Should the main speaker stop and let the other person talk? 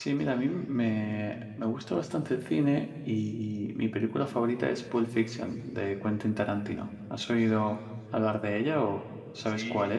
Yes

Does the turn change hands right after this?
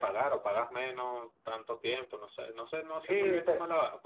Yes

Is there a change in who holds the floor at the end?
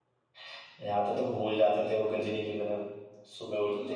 Yes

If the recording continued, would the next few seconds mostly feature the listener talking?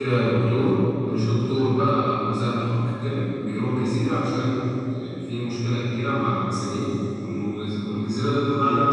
No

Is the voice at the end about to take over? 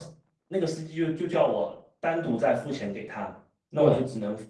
No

